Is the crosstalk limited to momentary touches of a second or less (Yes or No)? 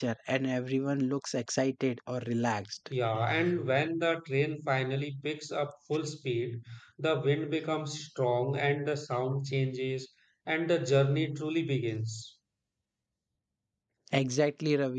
Yes